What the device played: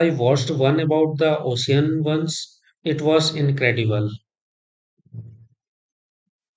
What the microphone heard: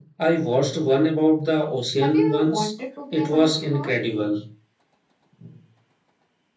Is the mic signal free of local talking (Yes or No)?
No